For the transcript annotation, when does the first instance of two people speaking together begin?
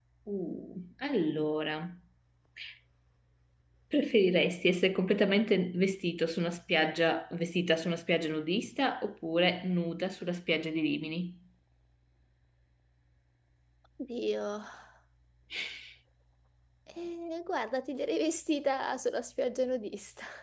none

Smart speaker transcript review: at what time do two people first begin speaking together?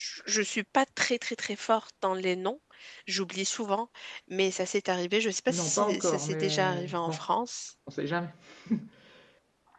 5.5 s

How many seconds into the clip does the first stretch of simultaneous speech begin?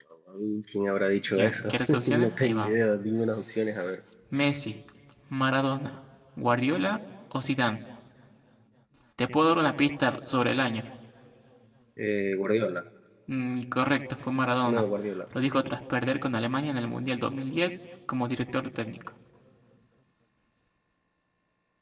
1.3 s

